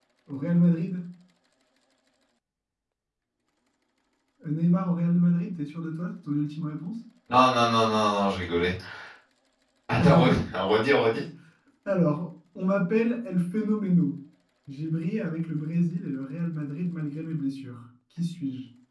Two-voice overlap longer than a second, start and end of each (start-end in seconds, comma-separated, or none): none